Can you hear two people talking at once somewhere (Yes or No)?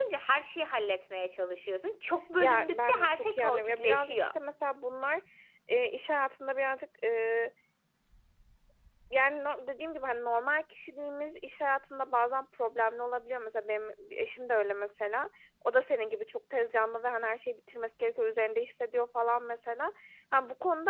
Yes